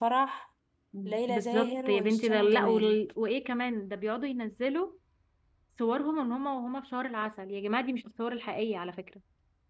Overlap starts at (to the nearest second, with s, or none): 1 s